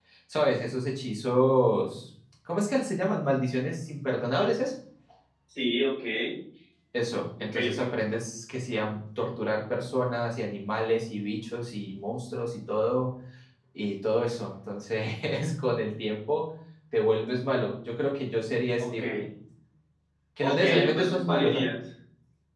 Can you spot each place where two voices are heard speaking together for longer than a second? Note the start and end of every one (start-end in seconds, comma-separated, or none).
20.4-21.6